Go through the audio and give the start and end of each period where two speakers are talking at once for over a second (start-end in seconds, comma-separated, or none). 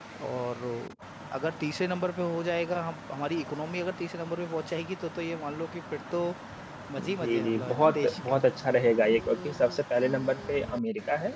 7.0-8.4